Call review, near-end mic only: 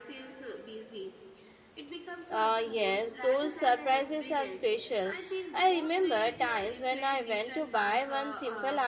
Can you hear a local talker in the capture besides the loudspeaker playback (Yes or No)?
Yes